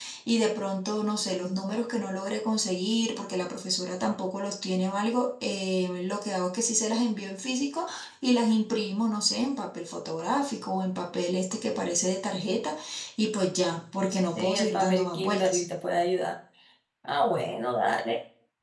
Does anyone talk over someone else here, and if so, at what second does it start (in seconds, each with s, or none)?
14.3 s